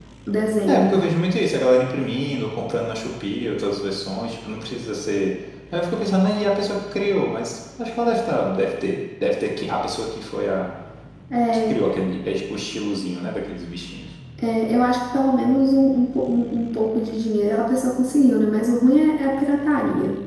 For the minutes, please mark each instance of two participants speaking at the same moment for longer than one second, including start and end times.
none

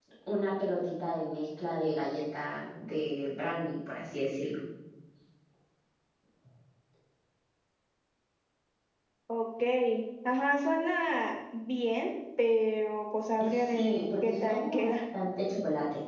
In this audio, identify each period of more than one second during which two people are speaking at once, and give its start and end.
13.4-14.9

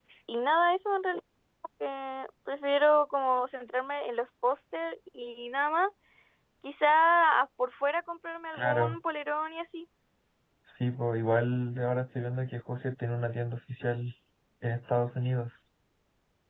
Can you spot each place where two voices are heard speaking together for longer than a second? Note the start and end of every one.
none

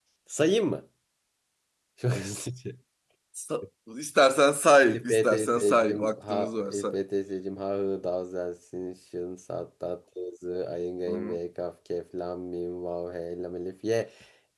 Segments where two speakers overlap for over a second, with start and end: 4.9-6.9

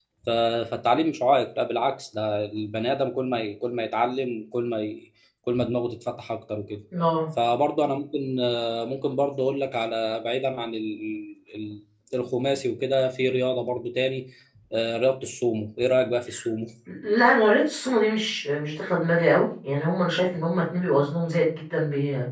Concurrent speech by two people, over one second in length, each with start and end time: none

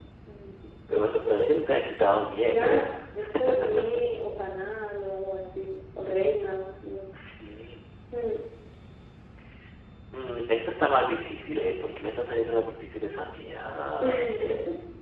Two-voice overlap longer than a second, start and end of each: none

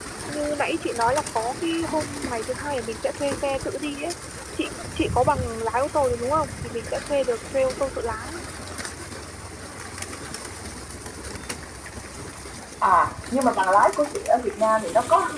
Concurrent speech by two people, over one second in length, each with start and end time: none

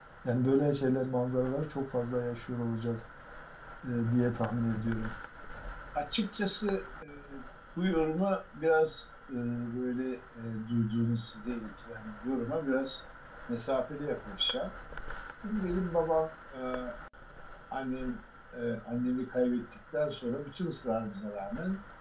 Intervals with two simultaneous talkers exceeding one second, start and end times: none

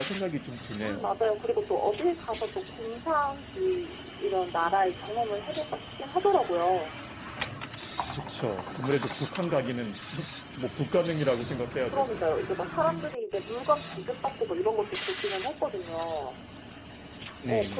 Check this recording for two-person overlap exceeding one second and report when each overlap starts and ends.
none

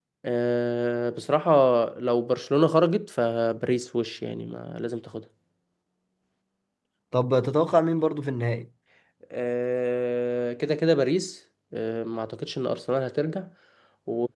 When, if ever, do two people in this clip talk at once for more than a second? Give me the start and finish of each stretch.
none

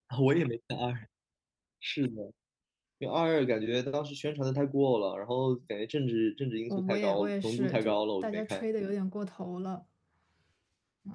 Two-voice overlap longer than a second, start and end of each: 6.7-8.6

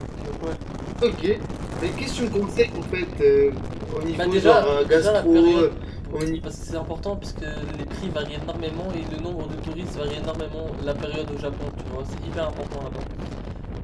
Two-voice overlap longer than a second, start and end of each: 4.2-5.7

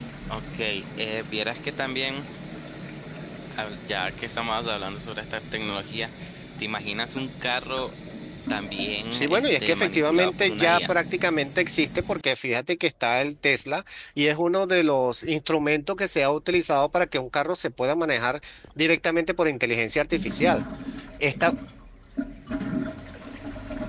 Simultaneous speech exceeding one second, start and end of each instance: 9.1-10.9

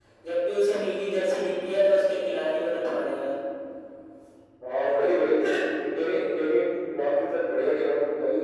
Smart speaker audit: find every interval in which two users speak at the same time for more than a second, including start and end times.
none

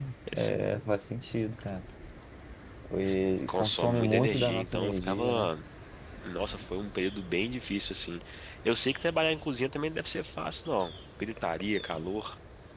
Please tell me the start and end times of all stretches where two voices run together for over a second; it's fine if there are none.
3.5-5.5

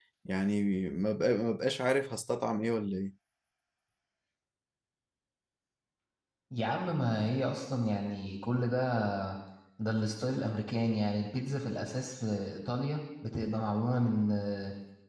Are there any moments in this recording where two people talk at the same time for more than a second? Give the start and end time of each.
none

